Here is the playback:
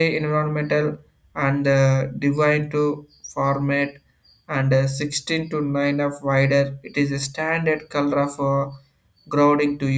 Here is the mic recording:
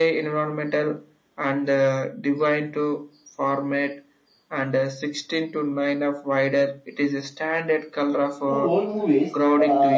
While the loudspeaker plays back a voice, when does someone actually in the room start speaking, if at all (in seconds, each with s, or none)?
8.4 s